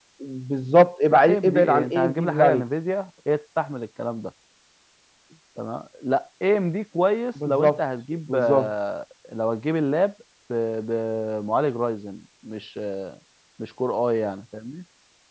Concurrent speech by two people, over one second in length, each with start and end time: 1.1-2.6

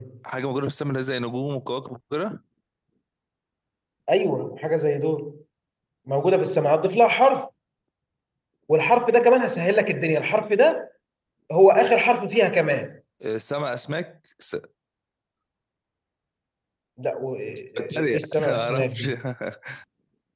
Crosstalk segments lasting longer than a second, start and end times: 17.8-19.0

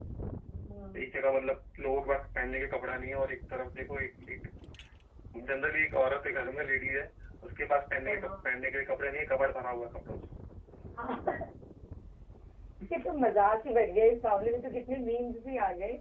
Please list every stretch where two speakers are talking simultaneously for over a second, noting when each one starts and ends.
none

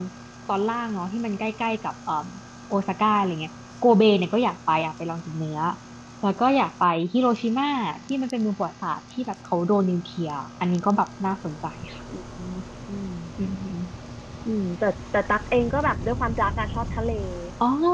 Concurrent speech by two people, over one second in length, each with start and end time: none

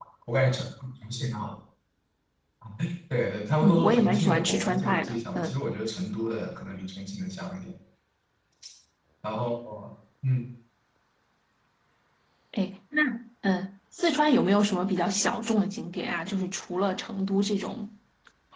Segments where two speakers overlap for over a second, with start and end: 3.6-5.6

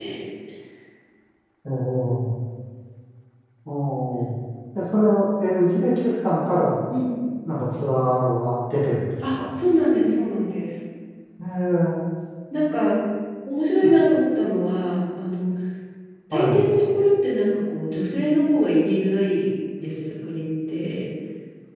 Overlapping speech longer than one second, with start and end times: none

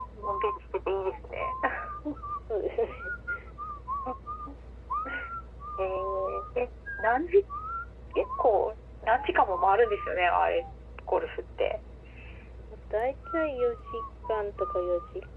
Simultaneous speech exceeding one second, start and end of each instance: none

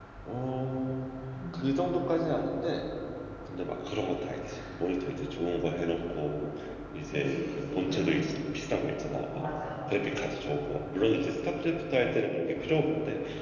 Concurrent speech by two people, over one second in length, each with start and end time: 7.0-8.3

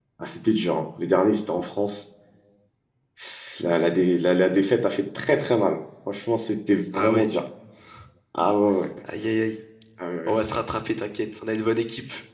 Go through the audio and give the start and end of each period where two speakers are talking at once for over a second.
none

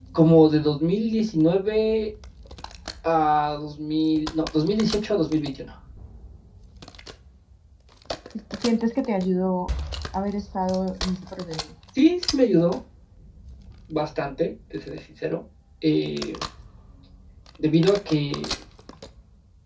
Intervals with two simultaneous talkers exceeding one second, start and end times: none

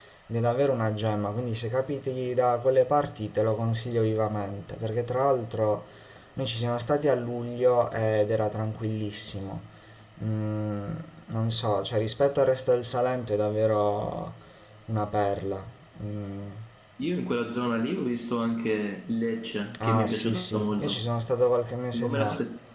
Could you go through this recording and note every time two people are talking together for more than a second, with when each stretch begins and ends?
19.8-21.1

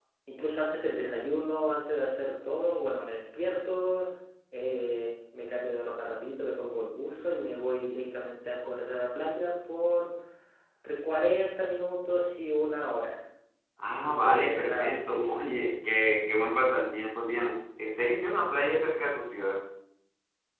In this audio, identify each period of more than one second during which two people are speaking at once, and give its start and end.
14.1-15.4

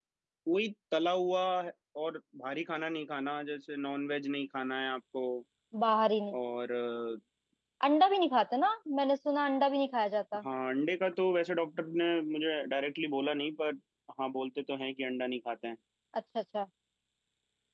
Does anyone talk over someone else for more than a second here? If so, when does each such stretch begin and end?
none

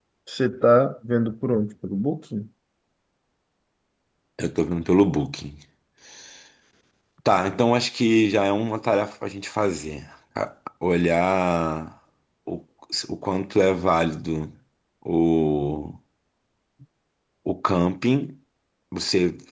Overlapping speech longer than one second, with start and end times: none

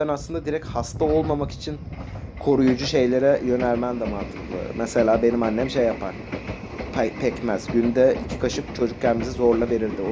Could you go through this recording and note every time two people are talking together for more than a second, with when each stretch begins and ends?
none

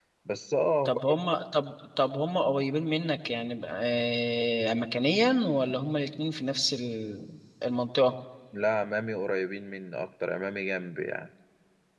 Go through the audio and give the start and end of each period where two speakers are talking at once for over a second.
none

